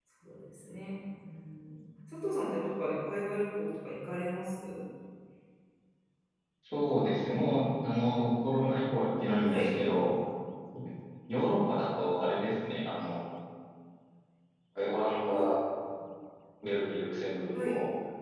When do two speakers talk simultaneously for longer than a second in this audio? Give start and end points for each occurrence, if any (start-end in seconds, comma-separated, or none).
none